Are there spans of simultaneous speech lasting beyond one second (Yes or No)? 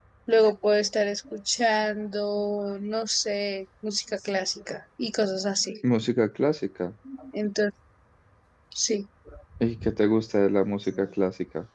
No